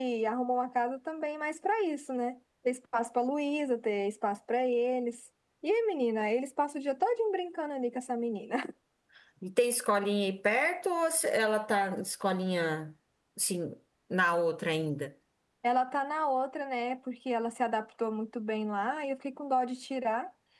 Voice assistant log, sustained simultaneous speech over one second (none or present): none